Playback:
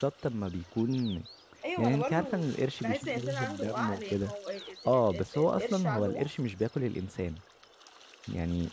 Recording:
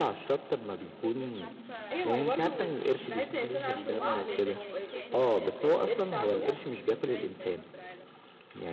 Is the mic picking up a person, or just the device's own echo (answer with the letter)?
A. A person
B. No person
A